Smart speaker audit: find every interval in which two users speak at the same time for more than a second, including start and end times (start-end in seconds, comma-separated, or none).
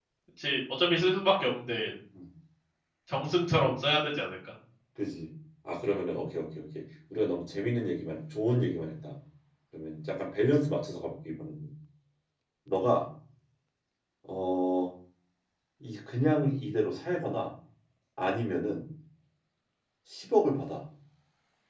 none